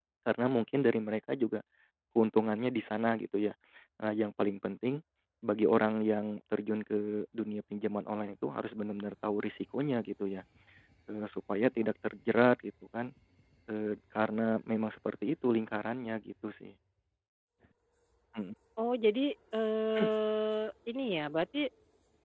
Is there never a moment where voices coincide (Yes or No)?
Yes